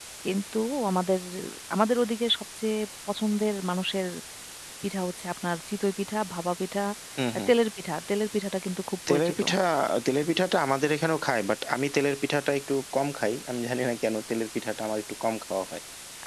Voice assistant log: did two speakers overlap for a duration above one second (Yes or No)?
No